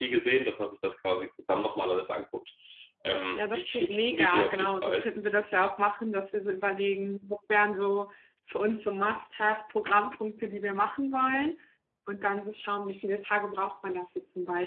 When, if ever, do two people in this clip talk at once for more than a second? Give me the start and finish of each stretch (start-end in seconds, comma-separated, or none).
3.4-5.1